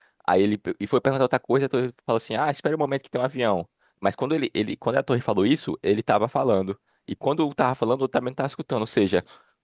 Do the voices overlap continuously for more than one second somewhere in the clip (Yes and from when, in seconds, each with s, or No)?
No